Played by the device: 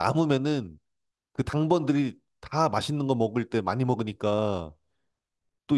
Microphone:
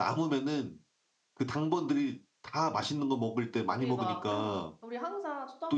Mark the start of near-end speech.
3.6 s

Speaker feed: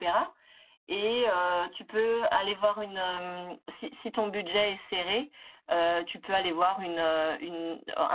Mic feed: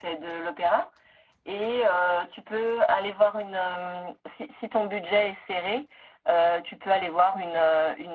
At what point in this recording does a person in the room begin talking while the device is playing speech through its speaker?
none

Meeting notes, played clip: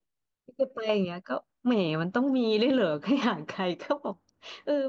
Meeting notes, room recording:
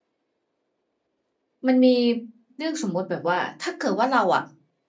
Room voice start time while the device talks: 1.7 s

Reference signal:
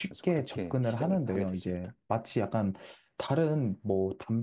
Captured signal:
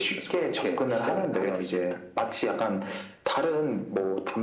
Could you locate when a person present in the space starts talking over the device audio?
none

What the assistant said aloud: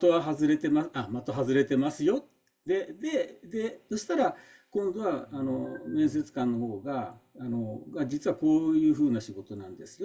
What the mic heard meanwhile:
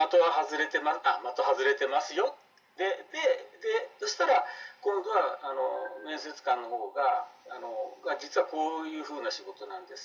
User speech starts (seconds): none

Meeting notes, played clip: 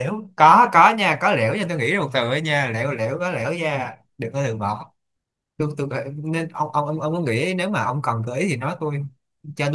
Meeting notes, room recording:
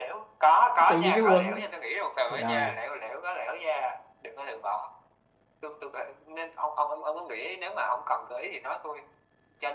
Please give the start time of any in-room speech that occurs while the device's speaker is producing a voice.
0.9 s

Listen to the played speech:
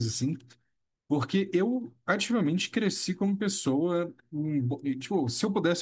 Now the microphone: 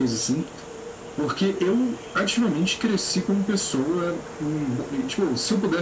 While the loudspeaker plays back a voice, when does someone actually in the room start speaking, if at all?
none

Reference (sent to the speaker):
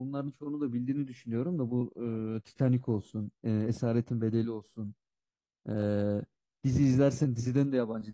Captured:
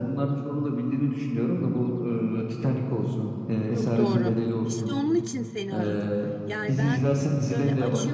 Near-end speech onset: 3.7 s

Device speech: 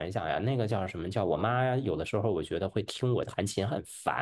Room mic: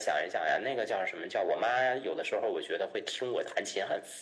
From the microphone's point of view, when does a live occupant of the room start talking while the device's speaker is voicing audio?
none

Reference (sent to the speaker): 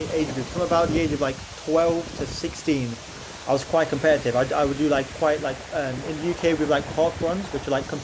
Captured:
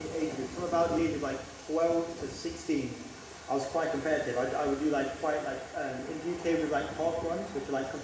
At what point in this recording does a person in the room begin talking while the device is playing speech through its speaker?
none

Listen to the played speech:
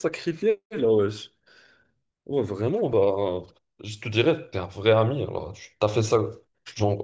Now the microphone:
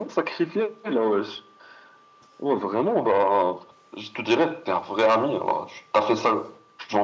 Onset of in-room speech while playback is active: none

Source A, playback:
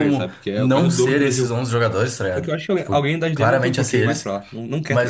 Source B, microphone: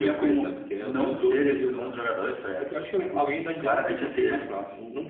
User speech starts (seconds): none

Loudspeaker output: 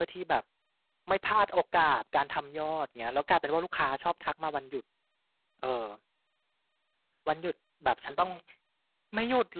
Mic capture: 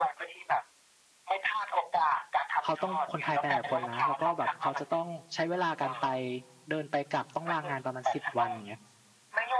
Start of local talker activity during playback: 2.6 s

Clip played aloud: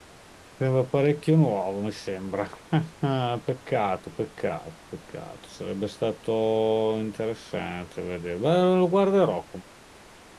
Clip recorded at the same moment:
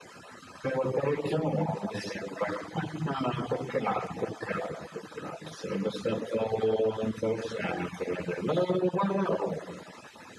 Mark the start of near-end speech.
none

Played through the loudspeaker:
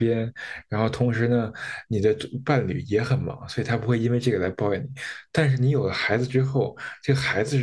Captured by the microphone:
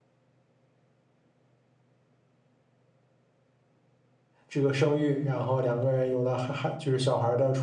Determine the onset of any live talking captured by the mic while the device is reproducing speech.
4.5 s

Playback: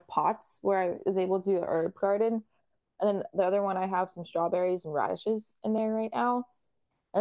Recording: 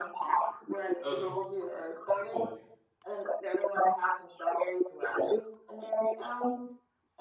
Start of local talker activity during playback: 1.0 s

